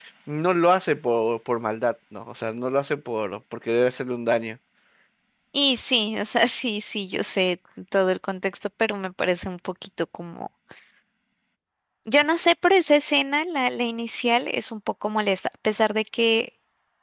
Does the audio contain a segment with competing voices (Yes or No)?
No